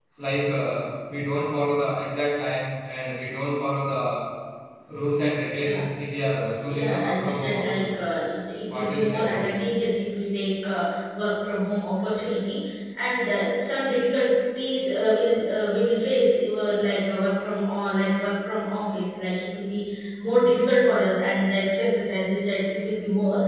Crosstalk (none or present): present